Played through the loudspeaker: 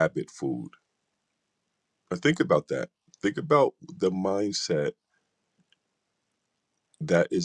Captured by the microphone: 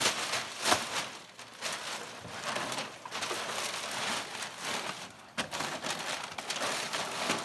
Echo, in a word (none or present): none